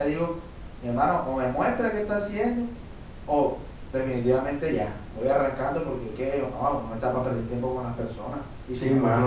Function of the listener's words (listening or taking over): taking over